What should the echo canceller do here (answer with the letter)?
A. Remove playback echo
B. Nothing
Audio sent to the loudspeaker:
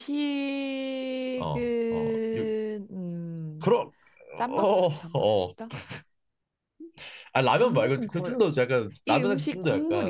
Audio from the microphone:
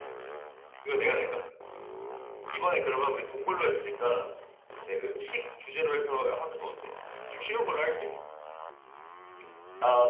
B